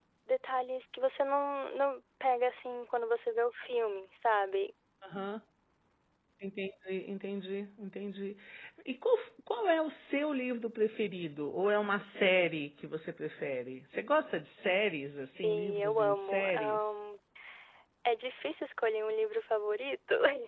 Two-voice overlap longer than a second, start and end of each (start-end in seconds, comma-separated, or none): 15.4-17.0